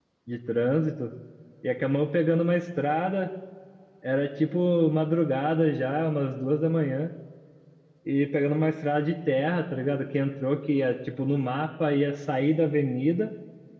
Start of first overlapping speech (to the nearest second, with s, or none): none